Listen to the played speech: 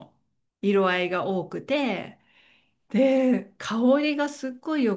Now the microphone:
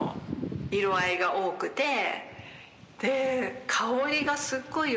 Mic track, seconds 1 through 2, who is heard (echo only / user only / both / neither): echo only